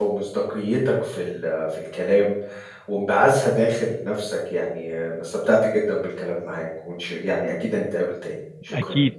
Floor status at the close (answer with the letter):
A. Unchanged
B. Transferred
B